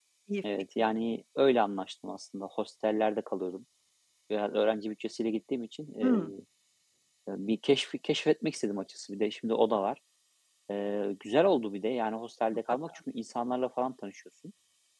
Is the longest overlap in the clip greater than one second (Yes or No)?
No